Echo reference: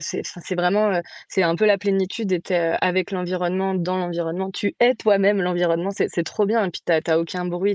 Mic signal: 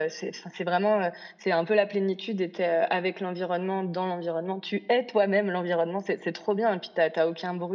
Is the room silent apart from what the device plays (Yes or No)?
Yes